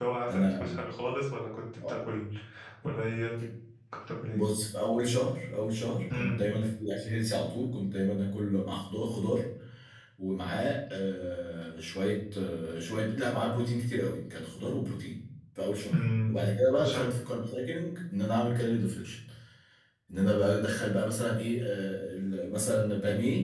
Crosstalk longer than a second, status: none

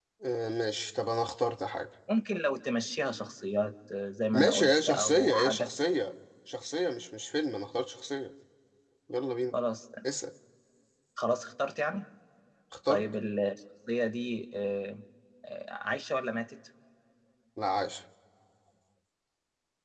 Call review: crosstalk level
present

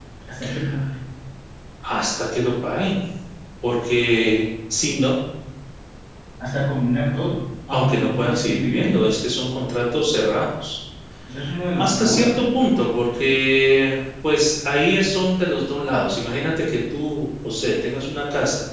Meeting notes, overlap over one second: present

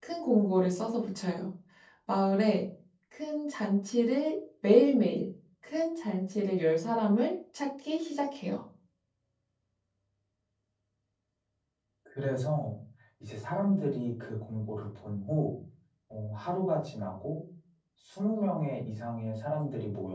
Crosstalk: none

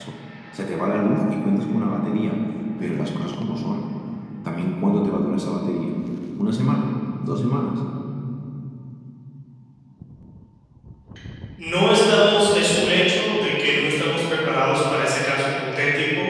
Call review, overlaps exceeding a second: none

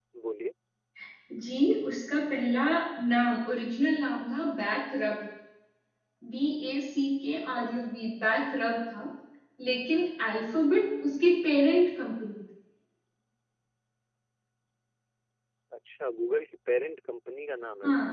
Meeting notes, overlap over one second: none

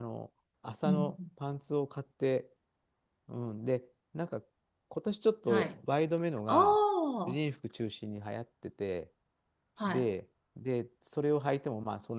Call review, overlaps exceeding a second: none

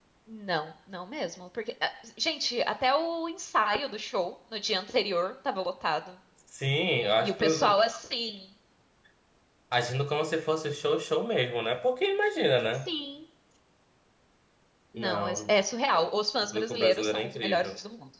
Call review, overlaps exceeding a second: present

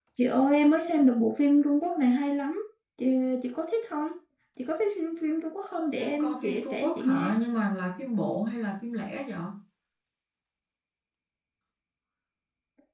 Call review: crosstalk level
present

